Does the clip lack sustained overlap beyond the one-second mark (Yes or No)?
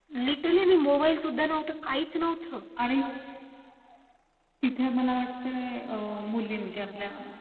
Yes